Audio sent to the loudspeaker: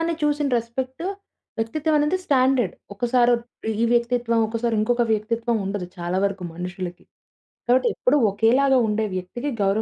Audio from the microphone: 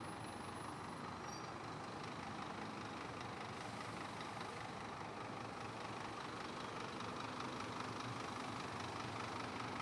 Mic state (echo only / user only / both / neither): neither